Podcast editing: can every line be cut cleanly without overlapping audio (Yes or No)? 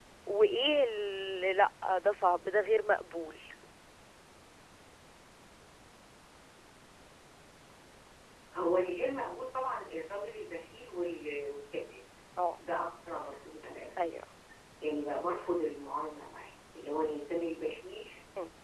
Yes